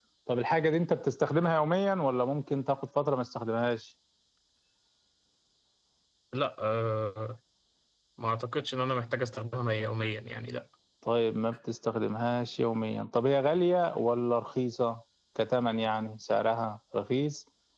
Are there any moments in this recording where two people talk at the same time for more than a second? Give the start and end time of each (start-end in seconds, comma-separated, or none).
none